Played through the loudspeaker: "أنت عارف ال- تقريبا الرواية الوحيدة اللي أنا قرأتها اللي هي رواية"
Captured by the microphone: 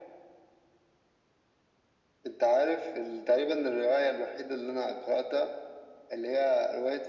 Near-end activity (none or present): none